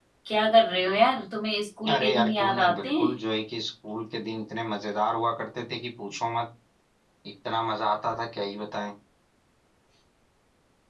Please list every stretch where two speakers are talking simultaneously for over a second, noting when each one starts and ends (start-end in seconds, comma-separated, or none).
1.9-3.1